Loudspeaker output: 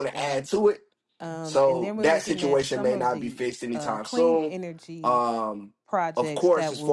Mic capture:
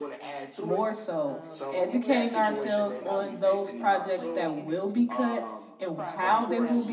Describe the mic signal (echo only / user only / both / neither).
both